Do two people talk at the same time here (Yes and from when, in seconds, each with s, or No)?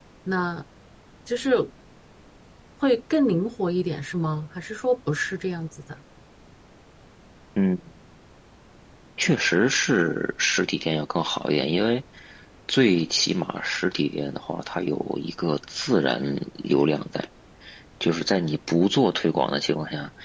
No